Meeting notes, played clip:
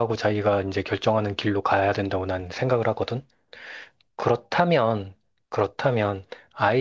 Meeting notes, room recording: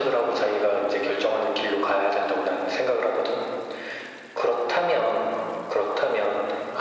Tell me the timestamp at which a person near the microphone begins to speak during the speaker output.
none

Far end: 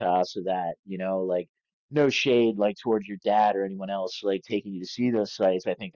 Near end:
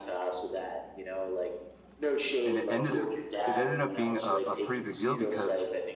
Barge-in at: 2.5 s

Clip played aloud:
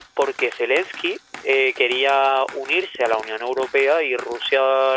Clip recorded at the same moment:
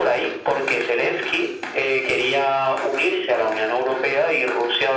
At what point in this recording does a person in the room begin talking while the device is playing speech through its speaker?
none

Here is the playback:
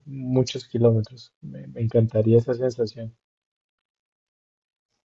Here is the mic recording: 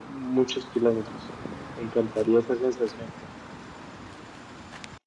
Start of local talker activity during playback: none

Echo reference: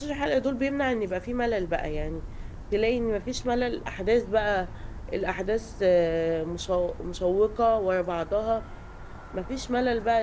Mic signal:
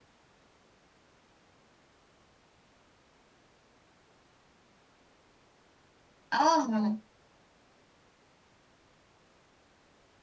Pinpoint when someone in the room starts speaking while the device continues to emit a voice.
6.3 s

